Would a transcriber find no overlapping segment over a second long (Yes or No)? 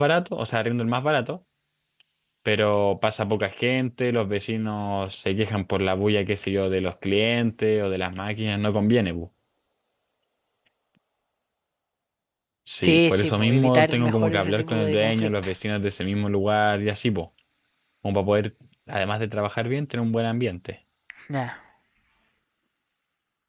No